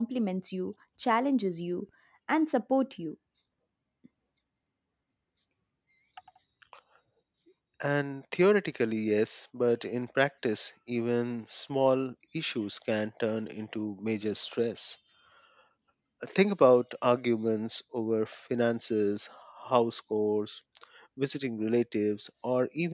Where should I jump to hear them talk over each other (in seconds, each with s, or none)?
none